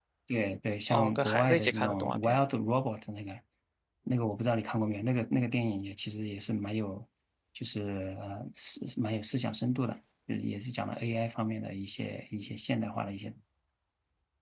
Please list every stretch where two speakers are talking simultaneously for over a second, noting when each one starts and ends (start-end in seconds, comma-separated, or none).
0.9-2.4